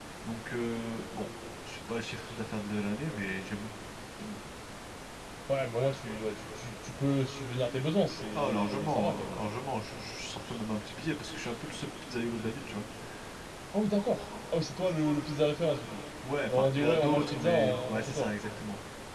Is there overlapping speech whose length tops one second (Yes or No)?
Yes